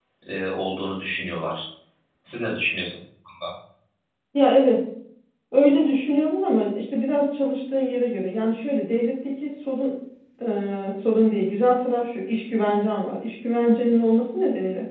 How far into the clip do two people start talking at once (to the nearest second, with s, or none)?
none